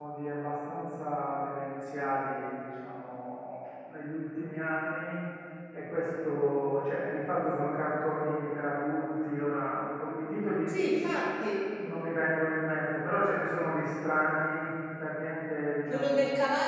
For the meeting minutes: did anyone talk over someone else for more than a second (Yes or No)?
No